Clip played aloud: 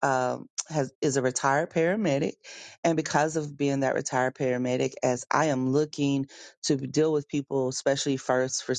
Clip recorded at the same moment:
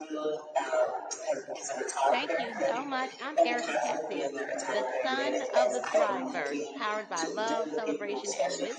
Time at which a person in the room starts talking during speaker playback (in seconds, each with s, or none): 2.1 s